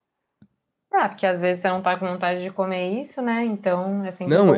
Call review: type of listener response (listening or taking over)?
taking over